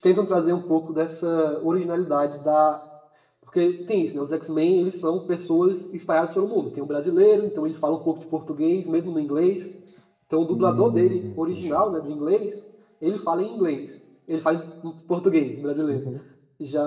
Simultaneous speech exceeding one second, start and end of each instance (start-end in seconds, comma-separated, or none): 10.5-11.9